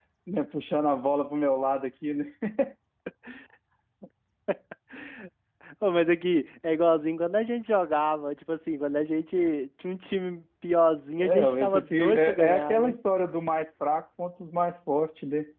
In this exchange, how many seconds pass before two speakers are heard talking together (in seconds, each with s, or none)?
11.2 s